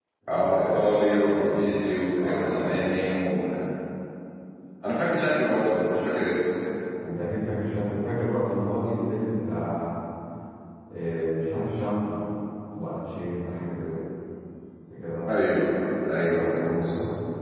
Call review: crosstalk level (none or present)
present